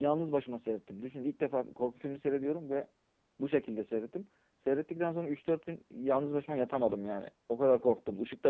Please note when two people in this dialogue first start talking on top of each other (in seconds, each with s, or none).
none